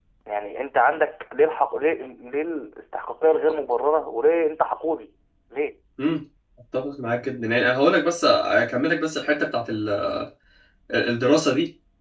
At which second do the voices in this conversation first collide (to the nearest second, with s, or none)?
none